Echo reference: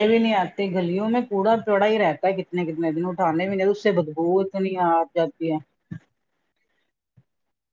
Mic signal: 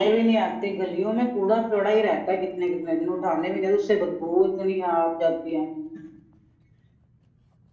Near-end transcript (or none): none